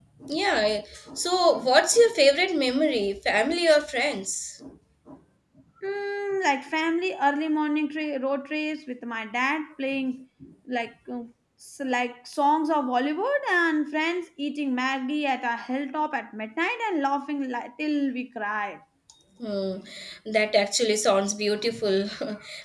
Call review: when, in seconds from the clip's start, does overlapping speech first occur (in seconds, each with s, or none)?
none